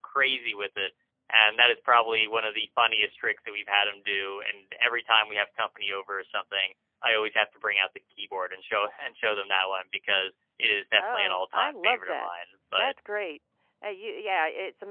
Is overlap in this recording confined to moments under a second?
No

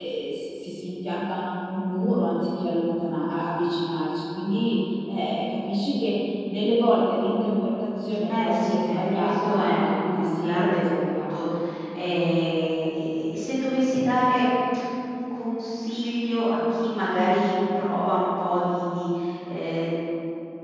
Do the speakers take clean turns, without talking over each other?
No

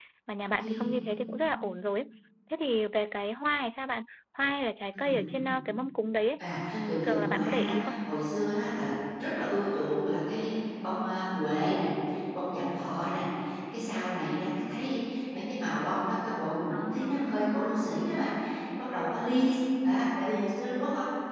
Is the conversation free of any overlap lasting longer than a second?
No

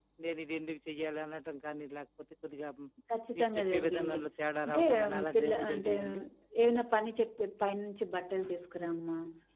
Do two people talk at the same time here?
Yes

